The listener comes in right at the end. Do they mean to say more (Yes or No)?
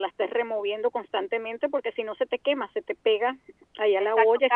Yes